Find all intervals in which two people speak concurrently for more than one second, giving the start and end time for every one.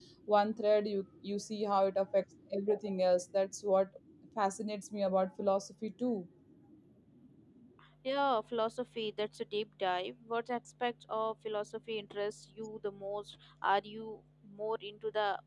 none

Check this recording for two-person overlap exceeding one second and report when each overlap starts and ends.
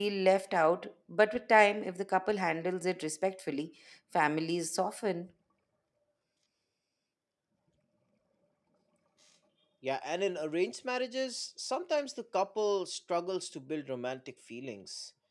none

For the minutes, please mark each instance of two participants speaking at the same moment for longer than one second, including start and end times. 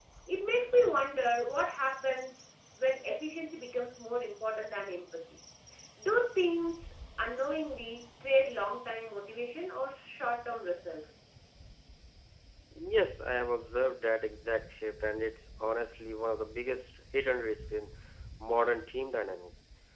none

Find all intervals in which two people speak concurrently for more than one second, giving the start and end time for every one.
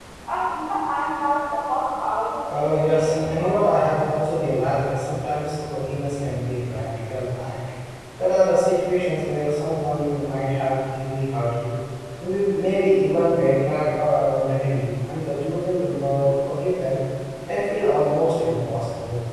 2.6-3.8

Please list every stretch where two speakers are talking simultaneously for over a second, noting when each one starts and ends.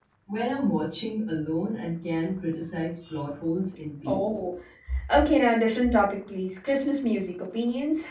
none

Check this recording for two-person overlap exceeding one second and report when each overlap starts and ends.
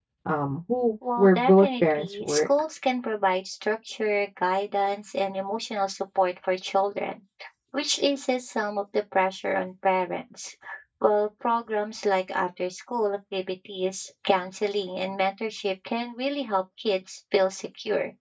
1.2-2.5

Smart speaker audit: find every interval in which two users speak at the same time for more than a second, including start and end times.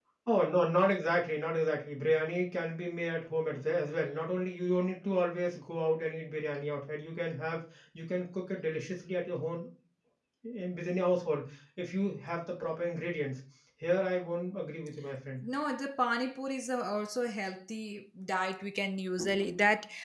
none

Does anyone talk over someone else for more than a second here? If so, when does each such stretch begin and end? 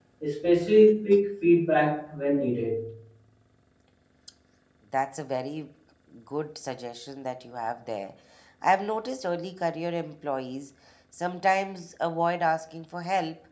none

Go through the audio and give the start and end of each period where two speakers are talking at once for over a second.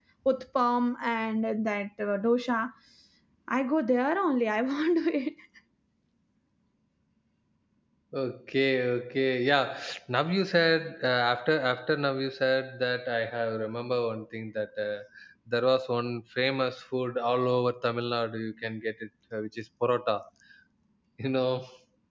none

